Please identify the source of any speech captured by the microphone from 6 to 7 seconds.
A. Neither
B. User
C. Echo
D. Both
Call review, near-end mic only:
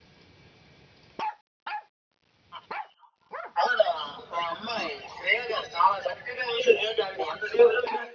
C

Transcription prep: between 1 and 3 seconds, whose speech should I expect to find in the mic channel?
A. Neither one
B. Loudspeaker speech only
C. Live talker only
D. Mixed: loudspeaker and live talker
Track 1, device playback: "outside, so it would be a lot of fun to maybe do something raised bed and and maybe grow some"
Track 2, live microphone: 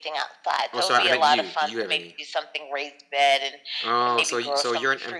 D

